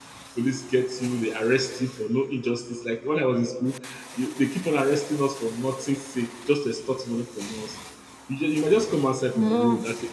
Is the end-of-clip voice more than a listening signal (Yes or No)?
No